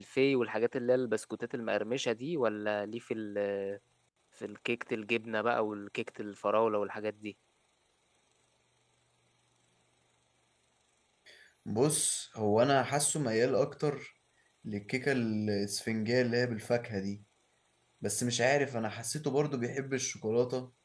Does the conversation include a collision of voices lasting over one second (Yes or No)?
No